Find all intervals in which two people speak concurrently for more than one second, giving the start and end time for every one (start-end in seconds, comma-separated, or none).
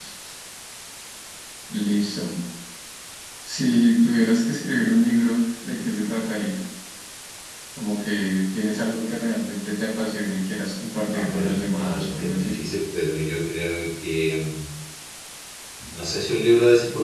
11.1-12.6